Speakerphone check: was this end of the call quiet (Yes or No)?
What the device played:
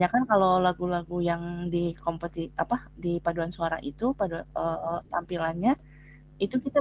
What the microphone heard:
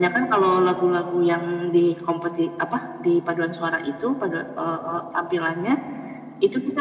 Yes